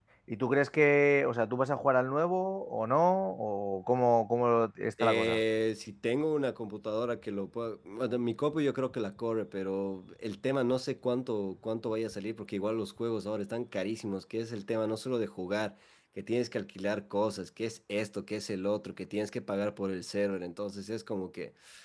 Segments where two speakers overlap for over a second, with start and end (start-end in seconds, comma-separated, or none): none